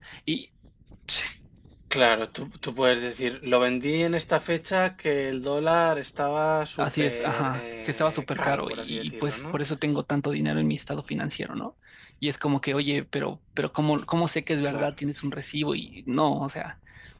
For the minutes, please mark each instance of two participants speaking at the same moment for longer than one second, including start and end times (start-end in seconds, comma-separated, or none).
6.8-9.6